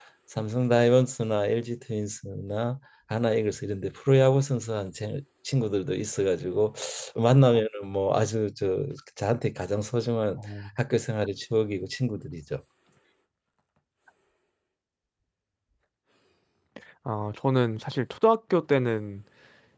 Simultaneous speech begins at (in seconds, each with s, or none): none